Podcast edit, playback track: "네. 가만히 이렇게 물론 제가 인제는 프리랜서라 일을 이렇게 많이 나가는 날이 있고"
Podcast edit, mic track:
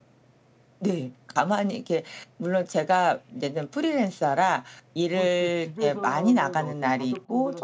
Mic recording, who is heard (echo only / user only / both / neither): both